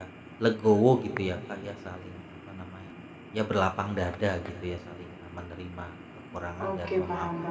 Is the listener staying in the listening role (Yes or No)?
No